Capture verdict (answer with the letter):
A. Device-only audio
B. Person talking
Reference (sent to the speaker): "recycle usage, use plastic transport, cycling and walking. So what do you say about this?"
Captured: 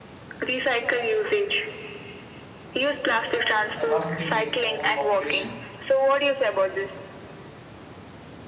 B